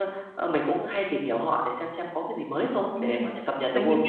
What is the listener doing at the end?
taking over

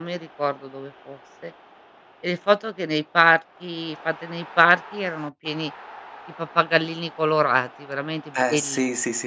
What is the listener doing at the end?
taking over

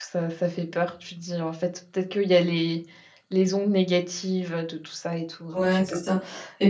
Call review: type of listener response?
taking over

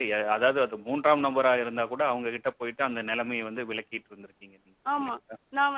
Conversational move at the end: taking over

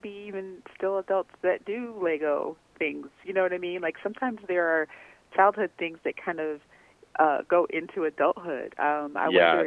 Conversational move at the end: taking over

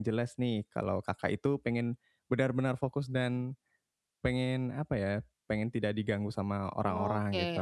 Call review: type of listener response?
taking over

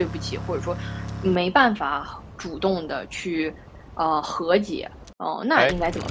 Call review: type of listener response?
taking over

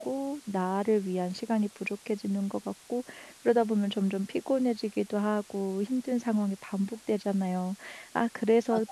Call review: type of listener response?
listening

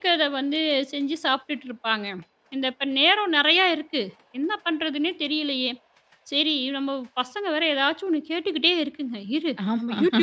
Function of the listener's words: listening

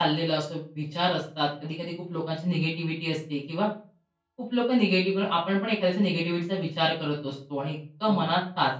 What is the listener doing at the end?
listening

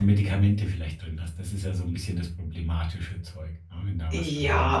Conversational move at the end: taking over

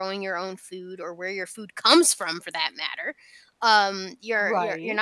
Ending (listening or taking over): listening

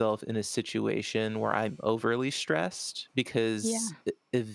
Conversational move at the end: listening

